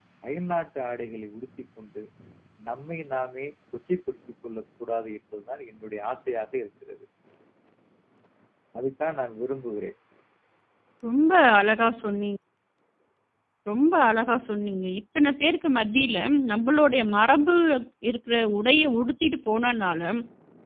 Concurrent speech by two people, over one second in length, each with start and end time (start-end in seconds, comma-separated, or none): none